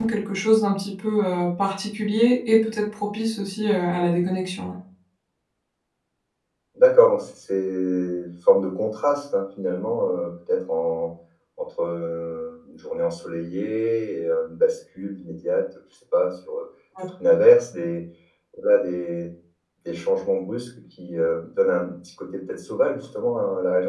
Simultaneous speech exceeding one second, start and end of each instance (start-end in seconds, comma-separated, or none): none